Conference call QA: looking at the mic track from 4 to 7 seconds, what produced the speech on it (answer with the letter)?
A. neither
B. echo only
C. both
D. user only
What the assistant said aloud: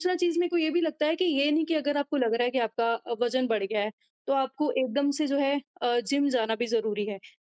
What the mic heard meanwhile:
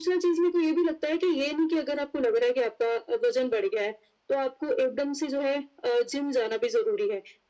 B